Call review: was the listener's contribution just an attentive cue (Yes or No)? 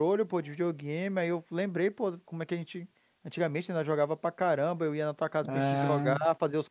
Yes